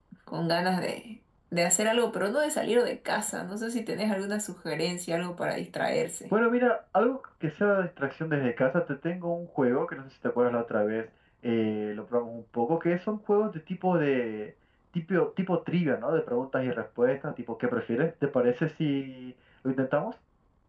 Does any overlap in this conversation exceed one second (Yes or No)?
No